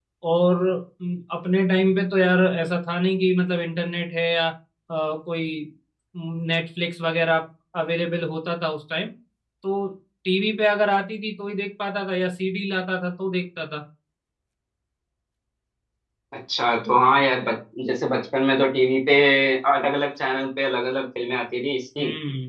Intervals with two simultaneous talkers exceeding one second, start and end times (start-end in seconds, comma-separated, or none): none